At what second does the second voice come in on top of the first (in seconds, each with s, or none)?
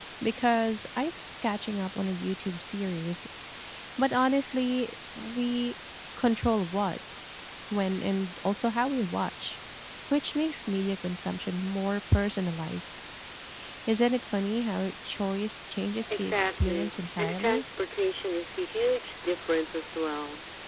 16.0 s